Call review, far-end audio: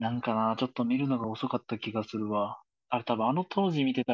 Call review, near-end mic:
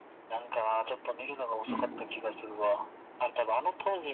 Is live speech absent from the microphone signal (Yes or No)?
No